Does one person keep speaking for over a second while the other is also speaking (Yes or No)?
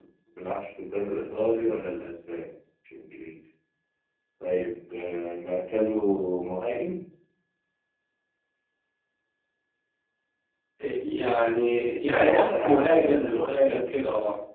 Yes